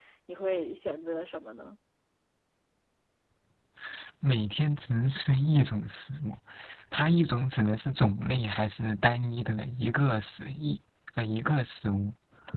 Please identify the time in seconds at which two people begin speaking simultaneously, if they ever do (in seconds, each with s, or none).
none